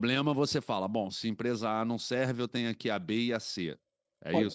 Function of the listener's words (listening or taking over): taking over